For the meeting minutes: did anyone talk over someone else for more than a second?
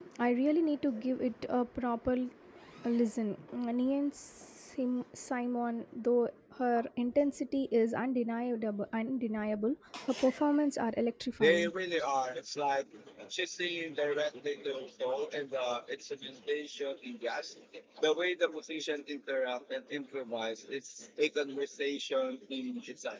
No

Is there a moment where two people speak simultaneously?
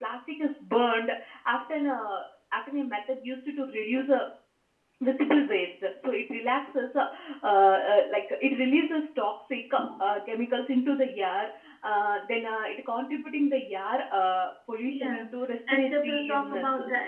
Yes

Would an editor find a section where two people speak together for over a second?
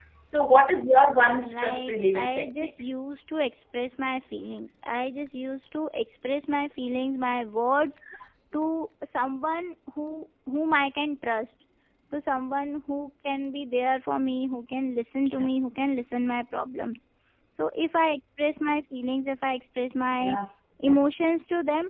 Yes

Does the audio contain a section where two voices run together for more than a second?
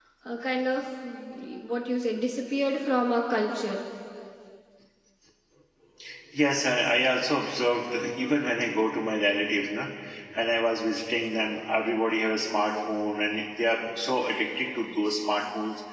No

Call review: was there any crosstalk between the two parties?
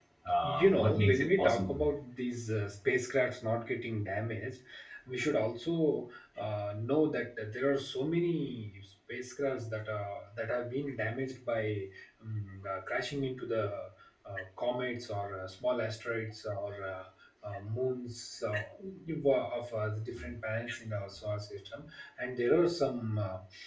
Yes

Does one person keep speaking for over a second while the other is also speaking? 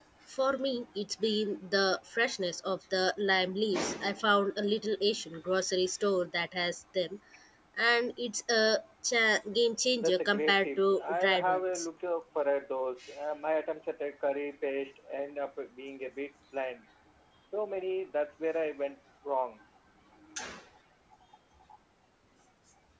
Yes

